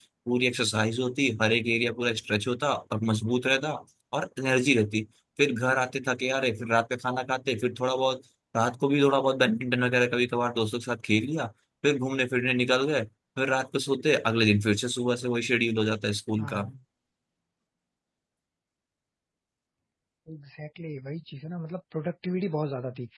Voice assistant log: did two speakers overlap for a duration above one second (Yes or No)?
No